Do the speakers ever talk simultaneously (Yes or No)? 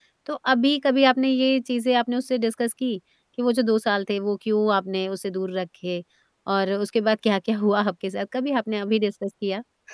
No